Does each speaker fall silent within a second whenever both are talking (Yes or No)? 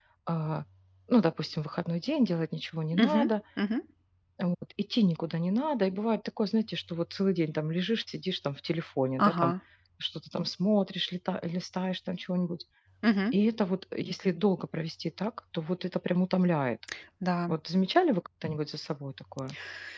Yes